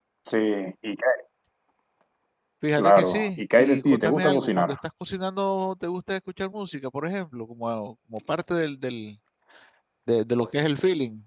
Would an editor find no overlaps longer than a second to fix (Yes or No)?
No